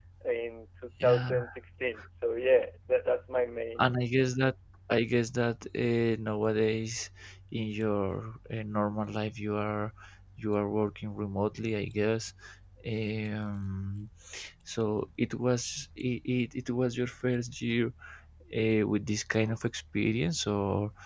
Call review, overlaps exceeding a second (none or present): none